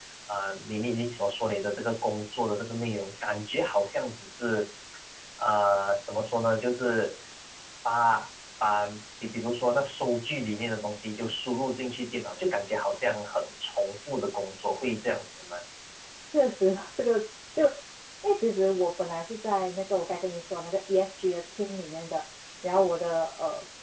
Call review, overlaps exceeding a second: none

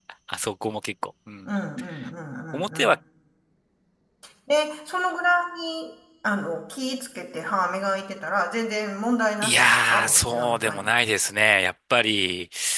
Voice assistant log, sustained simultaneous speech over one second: present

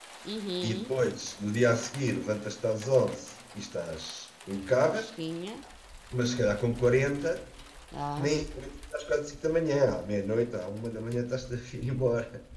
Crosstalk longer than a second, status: none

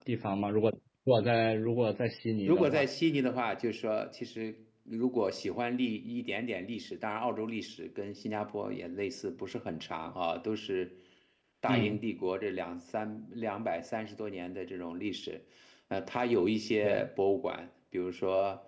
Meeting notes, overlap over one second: none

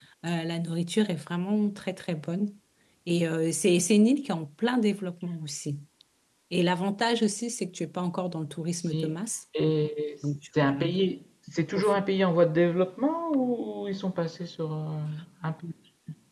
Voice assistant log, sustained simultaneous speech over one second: none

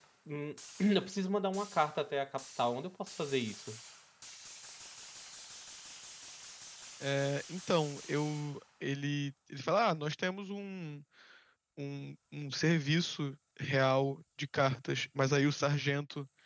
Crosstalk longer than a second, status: none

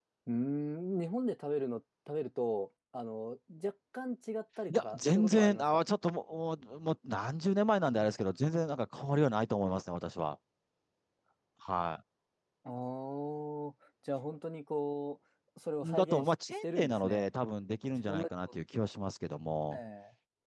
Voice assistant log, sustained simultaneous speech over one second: present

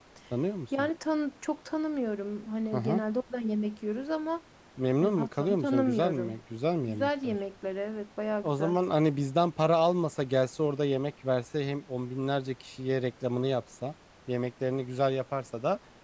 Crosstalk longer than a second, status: present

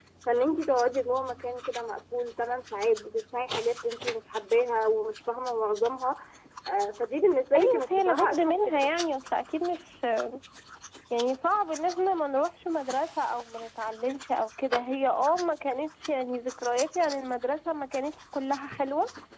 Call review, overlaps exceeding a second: present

